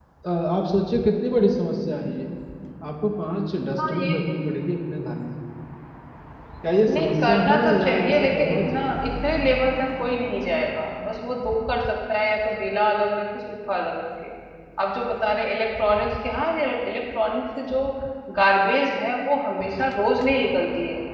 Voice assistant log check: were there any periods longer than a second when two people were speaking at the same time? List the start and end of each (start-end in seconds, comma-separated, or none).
6.9-8.9